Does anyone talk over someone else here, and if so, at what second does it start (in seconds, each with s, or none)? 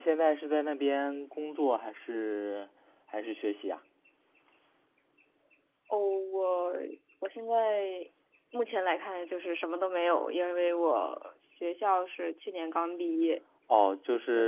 none